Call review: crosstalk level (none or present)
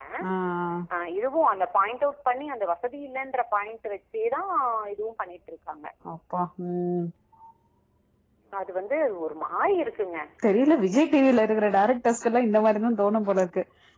none